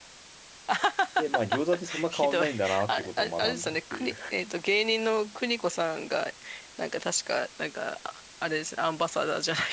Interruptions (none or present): present